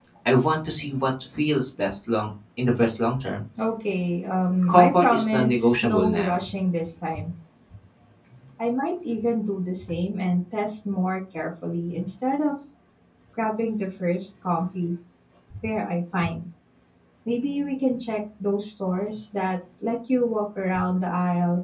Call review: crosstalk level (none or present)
present